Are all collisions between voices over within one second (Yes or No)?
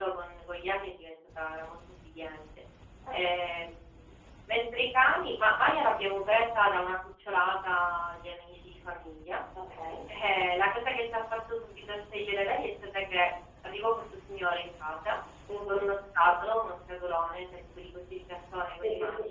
Yes